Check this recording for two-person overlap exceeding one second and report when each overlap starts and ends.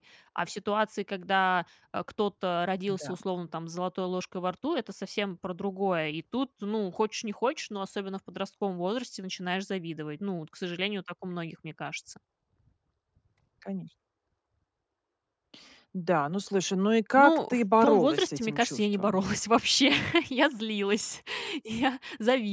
17.2-19.2

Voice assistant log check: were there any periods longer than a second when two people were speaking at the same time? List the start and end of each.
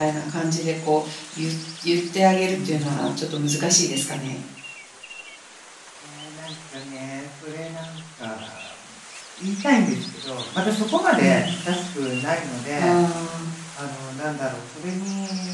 none

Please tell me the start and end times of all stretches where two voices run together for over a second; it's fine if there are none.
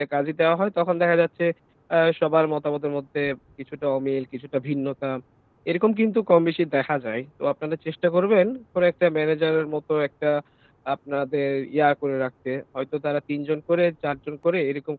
none

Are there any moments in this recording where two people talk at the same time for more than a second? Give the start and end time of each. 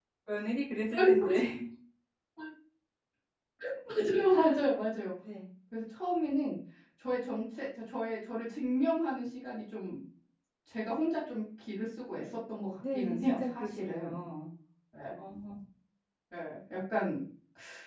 12.9-14.2

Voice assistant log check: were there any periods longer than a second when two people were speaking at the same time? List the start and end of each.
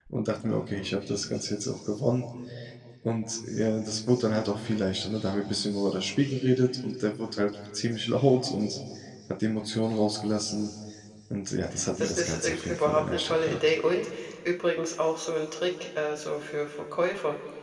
12.0-13.6

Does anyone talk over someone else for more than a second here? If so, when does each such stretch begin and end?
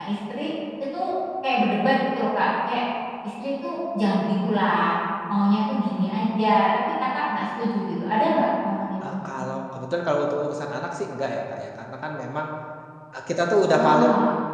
none

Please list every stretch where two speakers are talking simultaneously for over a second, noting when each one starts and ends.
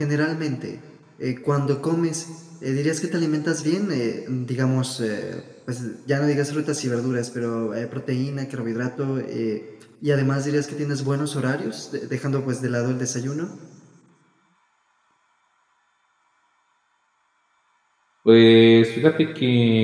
none

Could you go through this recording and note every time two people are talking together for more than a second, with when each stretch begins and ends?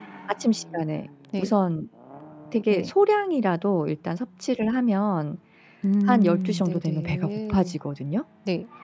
6.1-7.8

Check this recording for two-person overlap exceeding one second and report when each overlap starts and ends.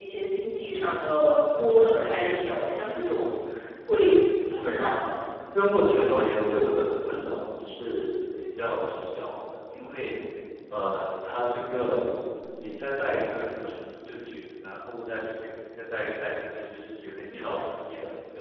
none

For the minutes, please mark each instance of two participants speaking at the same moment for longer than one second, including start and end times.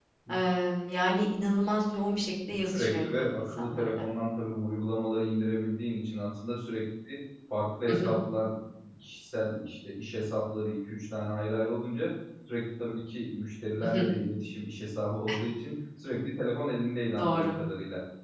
2.7-4.0

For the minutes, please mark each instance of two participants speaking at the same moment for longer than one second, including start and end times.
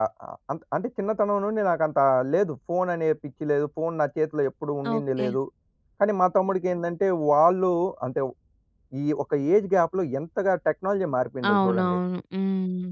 none

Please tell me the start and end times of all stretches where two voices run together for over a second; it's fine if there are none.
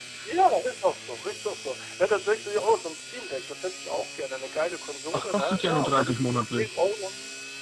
5.1-6.7

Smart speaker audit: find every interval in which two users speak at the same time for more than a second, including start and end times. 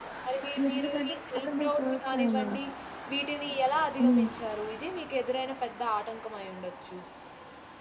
0.7-2.4

